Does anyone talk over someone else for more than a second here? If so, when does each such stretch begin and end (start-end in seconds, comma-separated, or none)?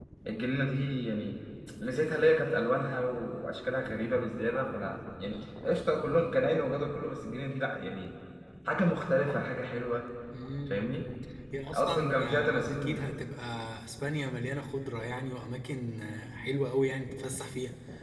11.7-13.0